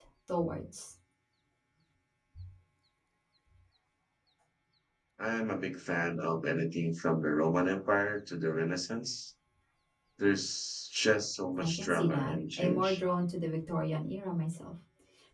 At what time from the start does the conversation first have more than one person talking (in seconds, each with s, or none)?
11.6 s